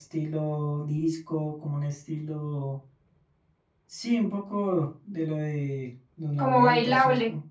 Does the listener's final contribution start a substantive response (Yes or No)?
No